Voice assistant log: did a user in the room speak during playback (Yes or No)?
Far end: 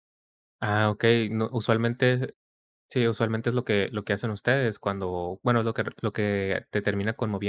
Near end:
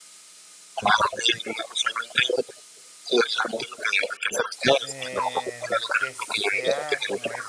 Yes